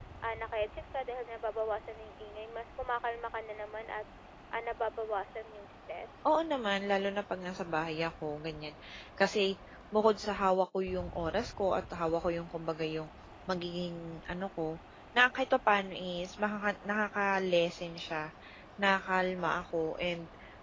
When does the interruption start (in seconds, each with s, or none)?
none